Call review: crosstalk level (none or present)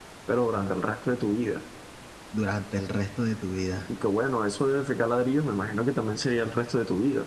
none